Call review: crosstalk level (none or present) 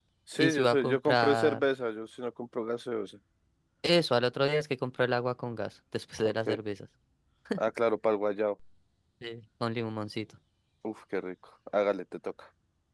present